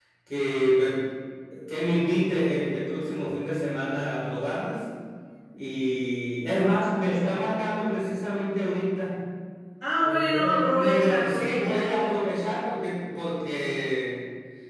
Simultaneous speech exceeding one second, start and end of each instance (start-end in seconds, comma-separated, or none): 10.1-12.2